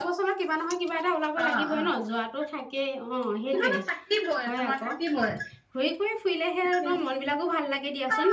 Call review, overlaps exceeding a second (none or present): none